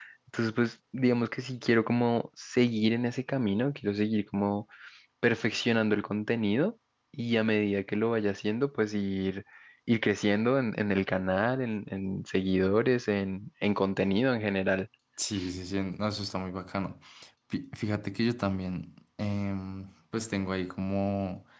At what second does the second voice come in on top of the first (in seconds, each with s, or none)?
none